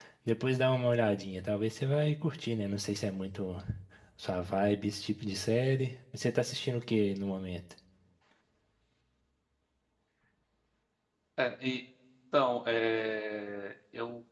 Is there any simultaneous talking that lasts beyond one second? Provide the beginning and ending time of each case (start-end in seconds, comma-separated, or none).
none